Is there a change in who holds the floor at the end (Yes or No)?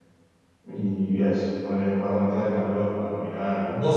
Yes